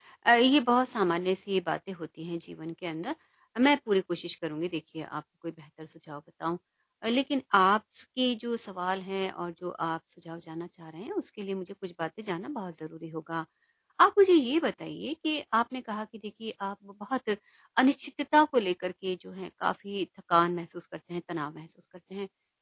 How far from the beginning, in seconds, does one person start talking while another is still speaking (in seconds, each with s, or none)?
none